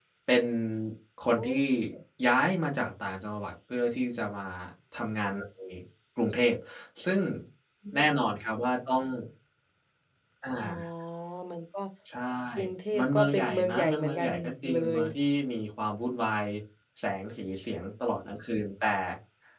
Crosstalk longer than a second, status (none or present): present